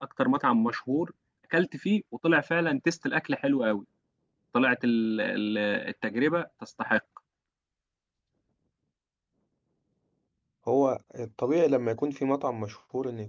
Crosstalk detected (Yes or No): No